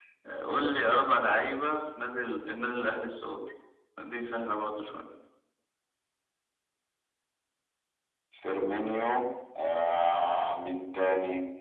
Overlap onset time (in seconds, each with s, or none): none